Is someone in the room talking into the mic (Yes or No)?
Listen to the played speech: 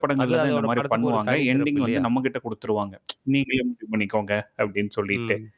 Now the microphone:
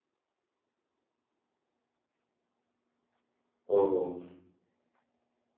Yes